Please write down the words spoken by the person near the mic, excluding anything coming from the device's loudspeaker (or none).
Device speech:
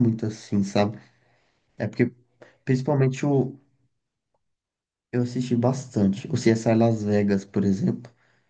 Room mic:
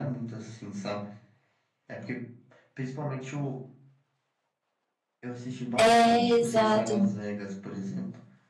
é exato.